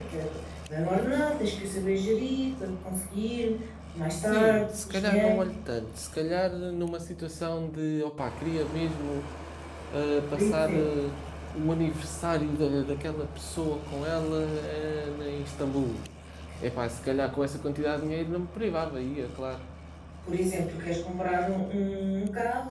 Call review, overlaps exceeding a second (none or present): present